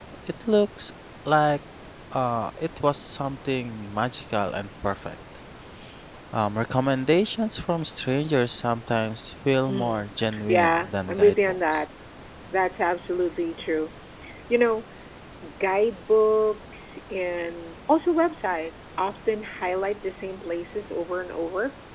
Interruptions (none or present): present